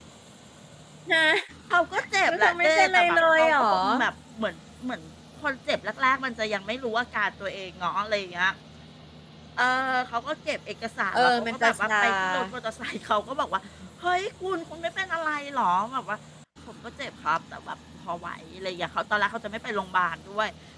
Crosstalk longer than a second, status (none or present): present